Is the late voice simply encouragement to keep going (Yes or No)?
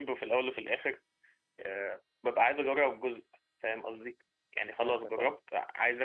Yes